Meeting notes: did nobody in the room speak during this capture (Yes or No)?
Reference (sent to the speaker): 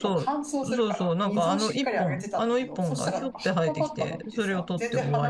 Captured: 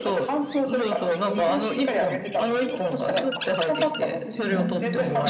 No